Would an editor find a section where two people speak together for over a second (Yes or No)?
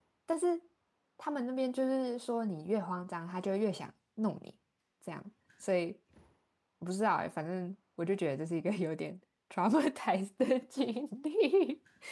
No